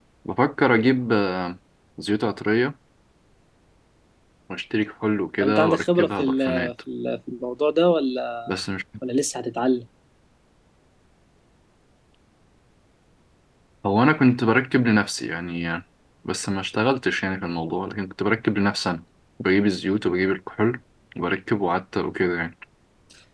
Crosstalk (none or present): present